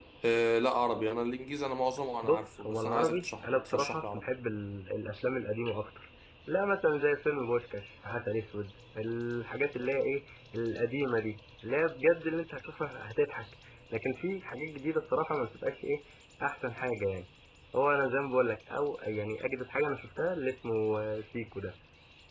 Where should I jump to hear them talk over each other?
2 s

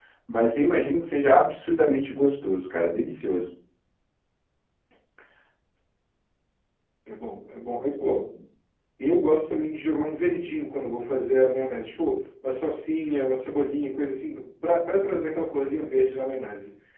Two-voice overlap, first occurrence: none

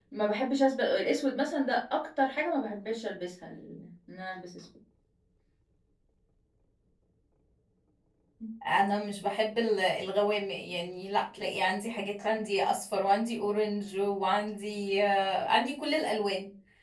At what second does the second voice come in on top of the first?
none

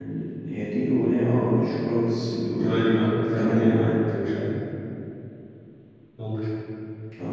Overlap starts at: 3 s

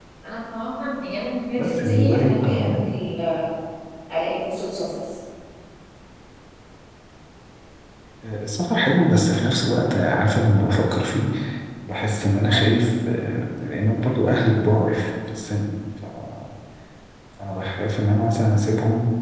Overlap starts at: 2 s

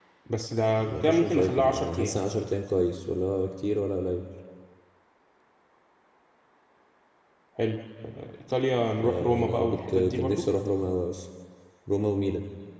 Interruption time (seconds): 1 s

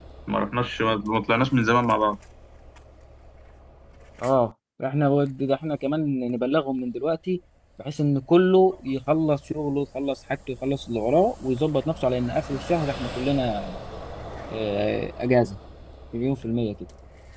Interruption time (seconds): none

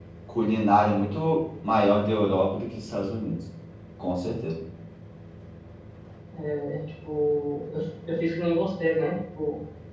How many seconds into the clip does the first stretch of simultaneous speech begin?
none

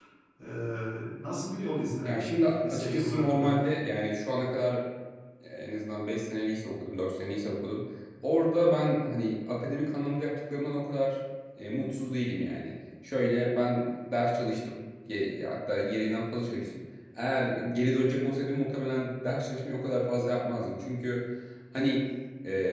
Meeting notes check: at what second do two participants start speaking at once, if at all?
2 s

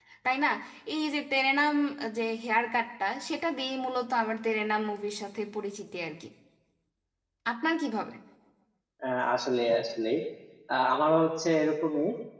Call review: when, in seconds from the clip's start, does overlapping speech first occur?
none

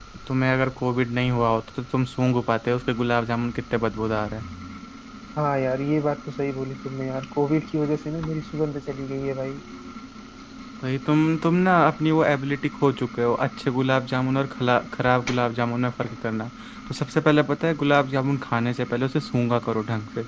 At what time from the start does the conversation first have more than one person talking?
none

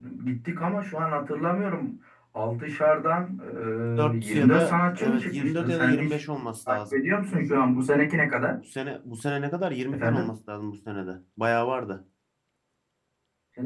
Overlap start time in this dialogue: 4 s

